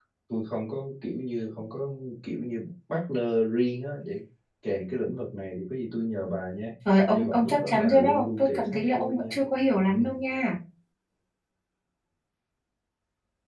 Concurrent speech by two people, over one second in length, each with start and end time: 7.1-9.2

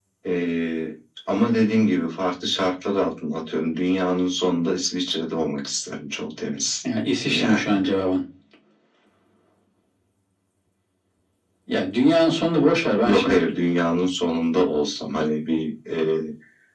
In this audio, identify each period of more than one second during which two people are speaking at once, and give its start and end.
none

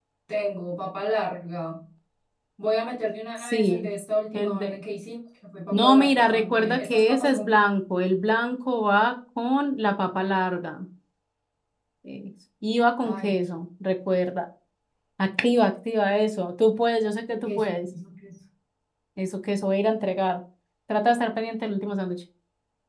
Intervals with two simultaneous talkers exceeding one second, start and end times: 5.7-7.4

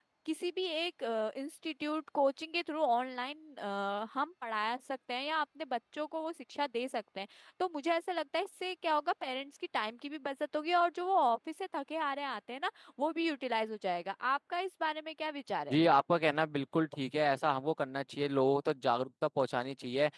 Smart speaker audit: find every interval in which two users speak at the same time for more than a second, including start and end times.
none

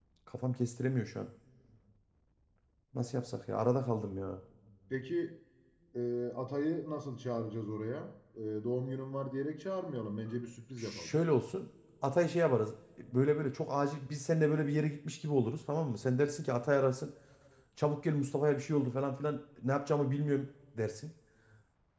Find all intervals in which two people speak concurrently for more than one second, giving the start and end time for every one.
none

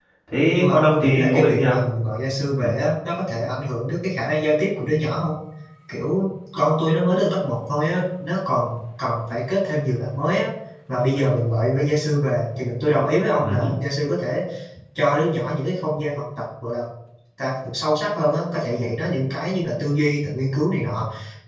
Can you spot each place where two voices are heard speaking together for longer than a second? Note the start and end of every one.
0.5-1.8

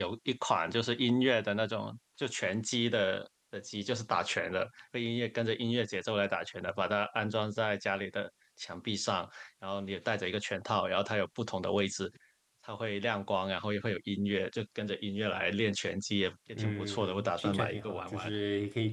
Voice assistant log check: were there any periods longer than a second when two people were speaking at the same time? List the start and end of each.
16.6-18.3

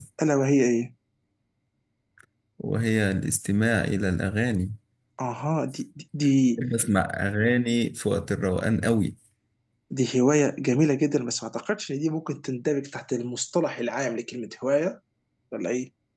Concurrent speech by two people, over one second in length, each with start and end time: none

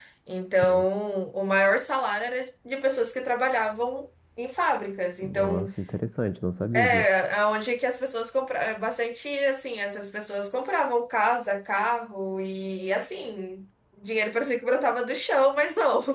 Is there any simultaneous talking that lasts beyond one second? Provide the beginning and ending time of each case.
none

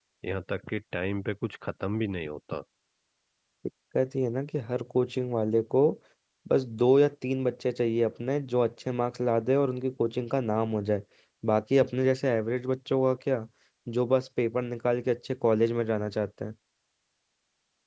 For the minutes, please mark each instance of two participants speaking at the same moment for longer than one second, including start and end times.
none

